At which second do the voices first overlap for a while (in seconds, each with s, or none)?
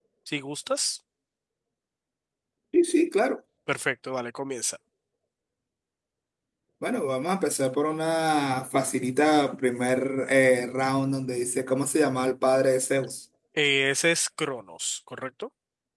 none